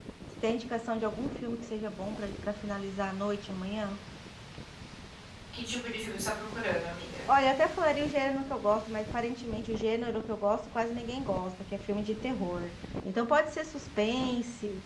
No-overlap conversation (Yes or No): Yes